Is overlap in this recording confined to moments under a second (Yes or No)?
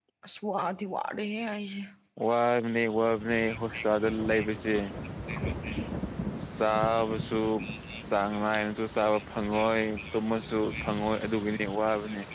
Yes